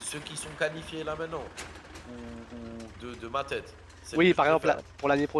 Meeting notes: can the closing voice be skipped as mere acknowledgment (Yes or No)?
No